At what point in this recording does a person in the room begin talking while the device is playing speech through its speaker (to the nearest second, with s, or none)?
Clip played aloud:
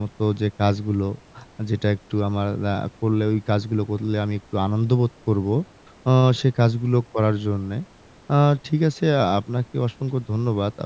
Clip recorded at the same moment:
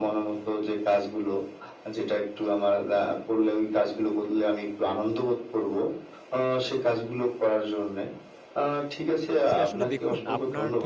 9 s